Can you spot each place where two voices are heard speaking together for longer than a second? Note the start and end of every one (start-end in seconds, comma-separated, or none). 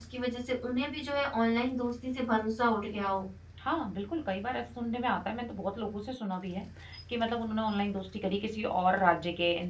none